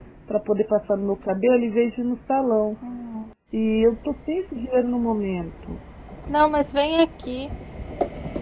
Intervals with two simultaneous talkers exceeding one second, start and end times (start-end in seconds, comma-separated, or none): none